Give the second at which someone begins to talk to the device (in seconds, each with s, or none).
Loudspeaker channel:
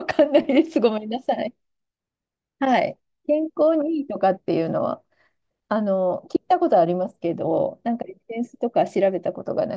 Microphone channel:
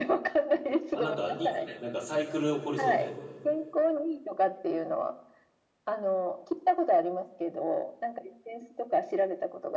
0.9 s